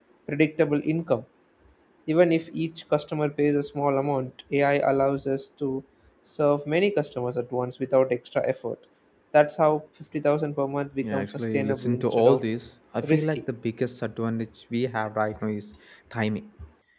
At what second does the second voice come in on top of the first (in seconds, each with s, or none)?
11.0 s